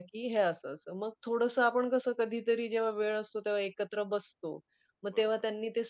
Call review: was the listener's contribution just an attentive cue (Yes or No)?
Yes